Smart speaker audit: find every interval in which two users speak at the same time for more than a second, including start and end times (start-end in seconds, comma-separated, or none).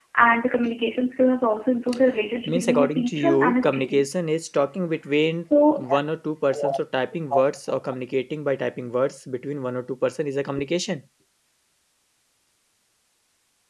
2.5-4.2